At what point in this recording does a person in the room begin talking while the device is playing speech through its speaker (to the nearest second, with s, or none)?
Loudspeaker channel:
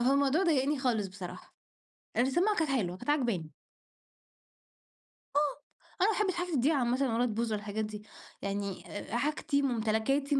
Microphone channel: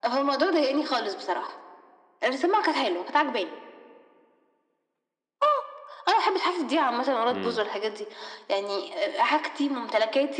7 s